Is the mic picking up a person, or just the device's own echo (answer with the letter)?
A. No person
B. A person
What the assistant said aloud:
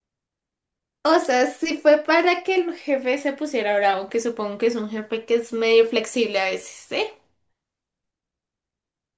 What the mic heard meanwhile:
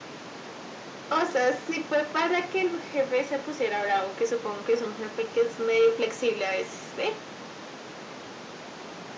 A